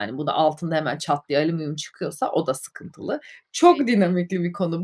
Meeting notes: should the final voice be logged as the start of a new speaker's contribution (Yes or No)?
No